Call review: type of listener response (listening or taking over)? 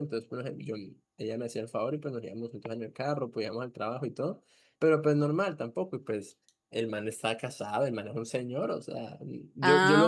listening